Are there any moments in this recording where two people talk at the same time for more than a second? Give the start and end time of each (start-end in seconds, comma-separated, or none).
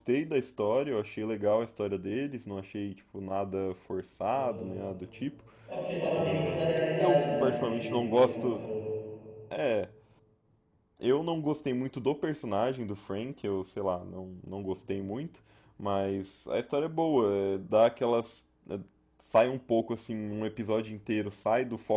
6.1-8.7